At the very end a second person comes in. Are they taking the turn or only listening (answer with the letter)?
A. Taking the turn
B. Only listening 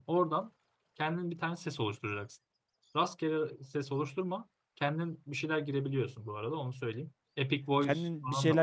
A